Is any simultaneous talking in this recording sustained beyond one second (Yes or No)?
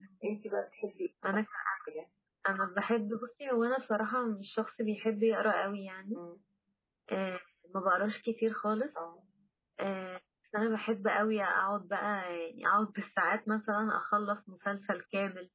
No